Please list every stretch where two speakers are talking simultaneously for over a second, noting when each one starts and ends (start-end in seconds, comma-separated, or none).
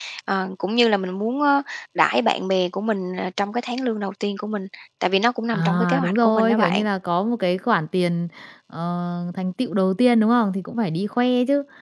5.5-6.8